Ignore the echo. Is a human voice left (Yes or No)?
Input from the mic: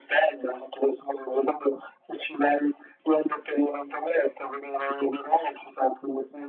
No